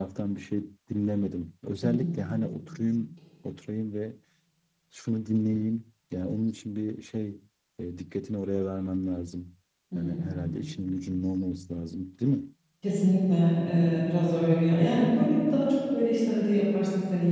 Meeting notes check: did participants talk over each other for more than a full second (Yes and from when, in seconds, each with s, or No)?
No